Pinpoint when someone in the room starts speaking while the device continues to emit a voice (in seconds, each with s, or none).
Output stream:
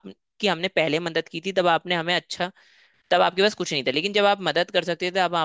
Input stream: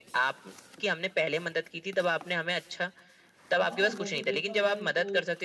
3.5 s